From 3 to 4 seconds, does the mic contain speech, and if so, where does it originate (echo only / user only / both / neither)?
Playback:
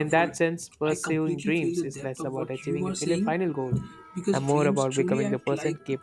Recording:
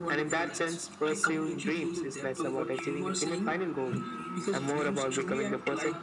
both